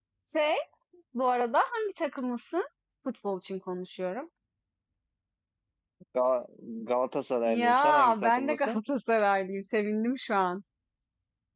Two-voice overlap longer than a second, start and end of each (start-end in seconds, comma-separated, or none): 7.5-8.8